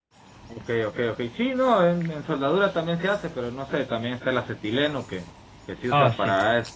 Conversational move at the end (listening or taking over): listening